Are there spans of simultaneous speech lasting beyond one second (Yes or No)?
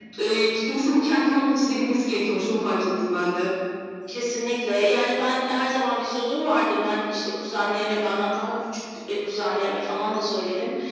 No